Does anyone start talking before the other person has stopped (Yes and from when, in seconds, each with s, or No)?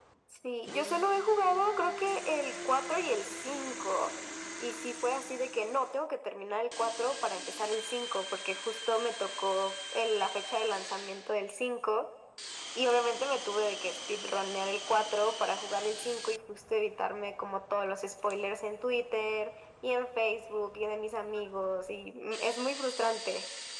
No